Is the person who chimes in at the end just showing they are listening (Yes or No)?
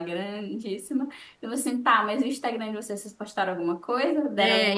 No